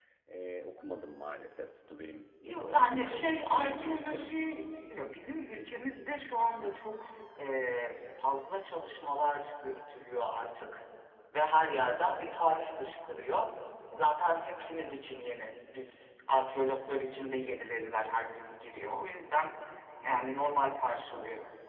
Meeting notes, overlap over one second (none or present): present